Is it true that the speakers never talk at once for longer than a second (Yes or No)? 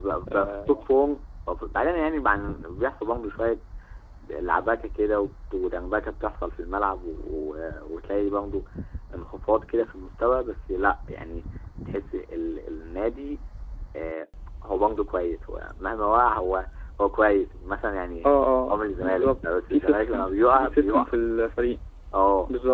No